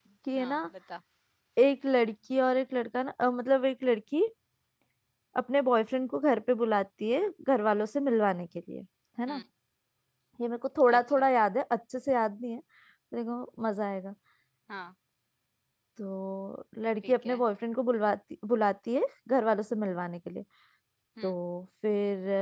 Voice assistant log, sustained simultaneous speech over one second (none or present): none